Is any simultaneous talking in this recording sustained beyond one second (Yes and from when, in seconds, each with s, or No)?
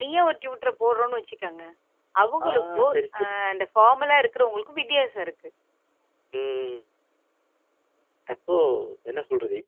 No